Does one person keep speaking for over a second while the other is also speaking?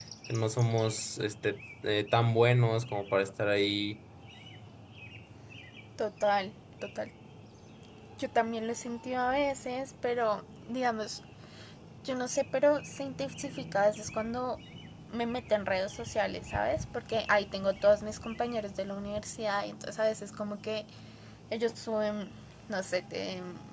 No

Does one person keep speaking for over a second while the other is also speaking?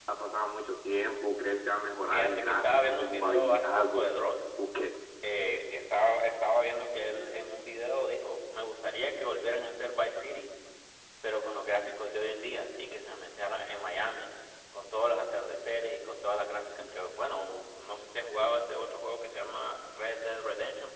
Yes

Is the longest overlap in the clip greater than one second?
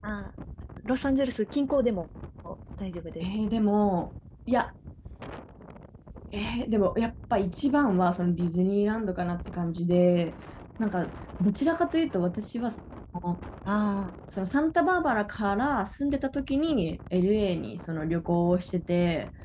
No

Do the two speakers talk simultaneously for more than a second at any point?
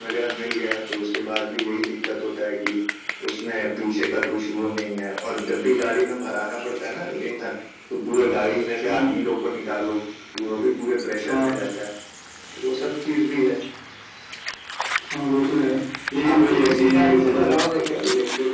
Yes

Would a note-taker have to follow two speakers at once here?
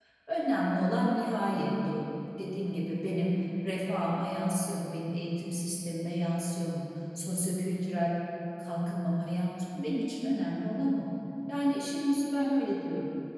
No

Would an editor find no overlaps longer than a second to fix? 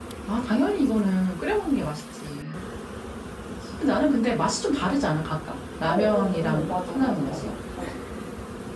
No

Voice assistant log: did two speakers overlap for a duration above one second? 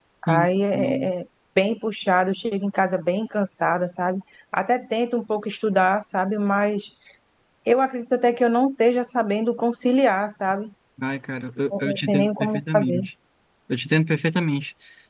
Yes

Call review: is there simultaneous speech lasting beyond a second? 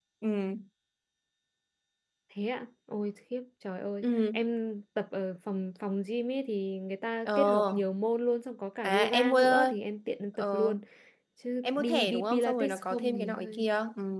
Yes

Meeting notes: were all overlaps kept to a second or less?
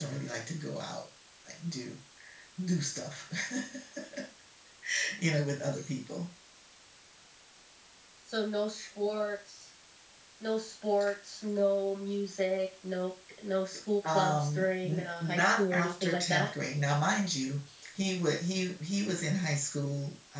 No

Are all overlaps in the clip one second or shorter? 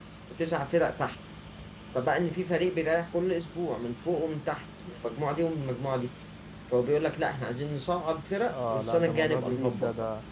No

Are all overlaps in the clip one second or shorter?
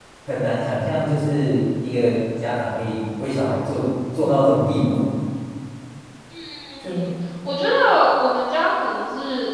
Yes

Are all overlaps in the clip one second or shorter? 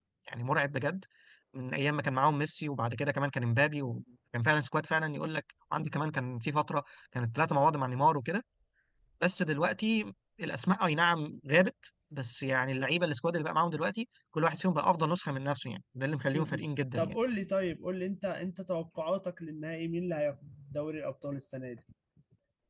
Yes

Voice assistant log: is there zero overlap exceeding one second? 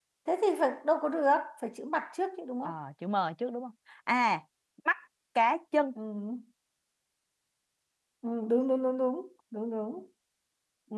Yes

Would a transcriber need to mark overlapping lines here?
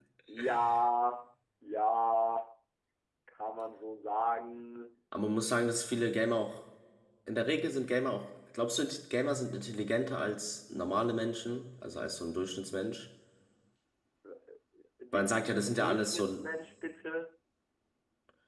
Yes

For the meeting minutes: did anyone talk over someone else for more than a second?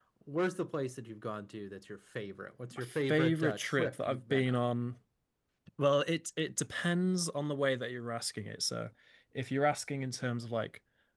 Yes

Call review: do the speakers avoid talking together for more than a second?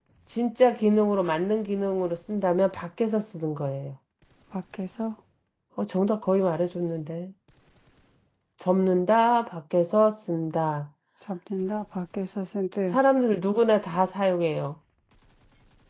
Yes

